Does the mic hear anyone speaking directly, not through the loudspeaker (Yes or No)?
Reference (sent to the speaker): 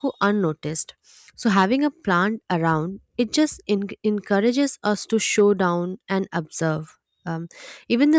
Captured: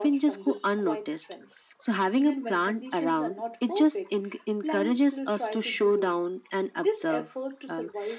Yes